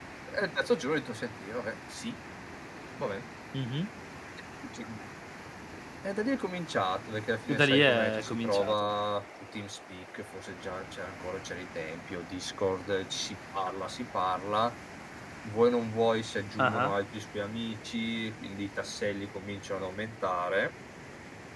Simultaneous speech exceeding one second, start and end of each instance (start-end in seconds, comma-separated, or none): 7.5-8.9